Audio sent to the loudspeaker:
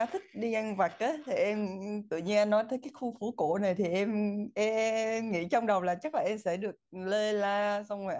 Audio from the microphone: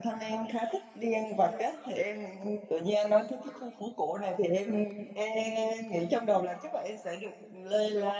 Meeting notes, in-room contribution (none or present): none